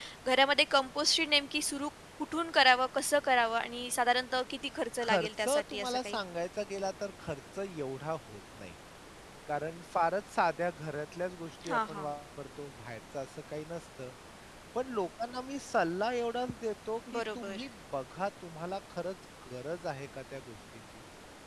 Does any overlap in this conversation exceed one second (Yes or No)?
Yes